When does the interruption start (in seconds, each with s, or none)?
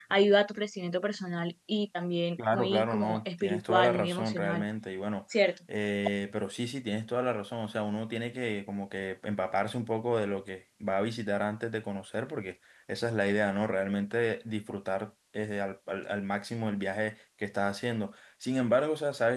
2.4 s